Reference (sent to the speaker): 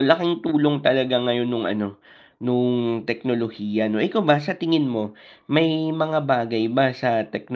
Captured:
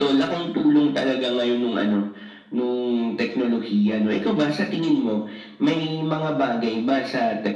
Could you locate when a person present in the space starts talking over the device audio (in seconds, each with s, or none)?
none